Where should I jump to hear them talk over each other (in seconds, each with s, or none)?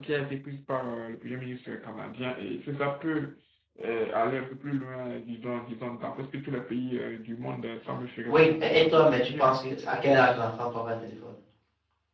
8.3 s